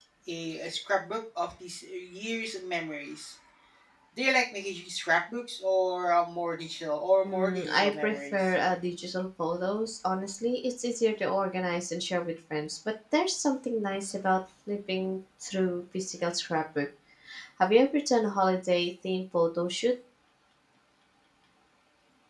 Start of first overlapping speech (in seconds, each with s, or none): 7.2 s